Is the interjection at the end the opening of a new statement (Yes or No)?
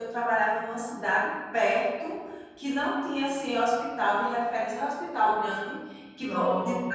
No